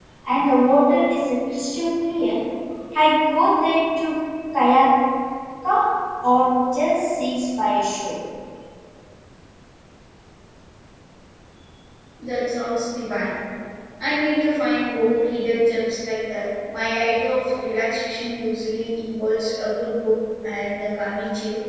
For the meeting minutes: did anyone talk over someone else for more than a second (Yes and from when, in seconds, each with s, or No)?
No